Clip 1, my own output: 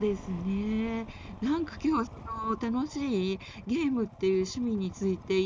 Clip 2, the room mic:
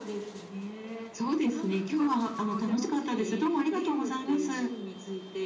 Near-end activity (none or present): present